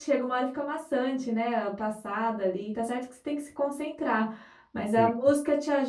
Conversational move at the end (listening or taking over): listening